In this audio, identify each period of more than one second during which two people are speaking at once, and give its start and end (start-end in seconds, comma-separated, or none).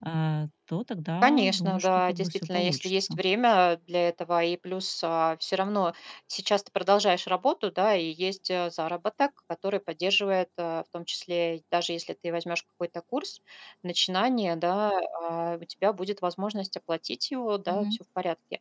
1.2-3.2